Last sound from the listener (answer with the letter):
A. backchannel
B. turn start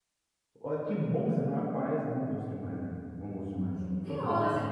B